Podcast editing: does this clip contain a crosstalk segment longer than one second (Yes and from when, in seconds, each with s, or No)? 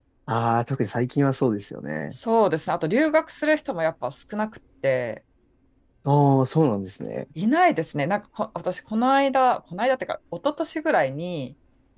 No